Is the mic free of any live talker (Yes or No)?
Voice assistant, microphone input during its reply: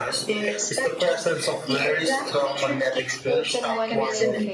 No